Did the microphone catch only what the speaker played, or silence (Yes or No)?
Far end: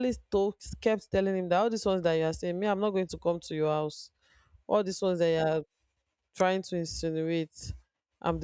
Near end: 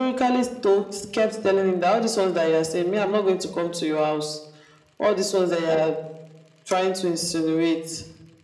Yes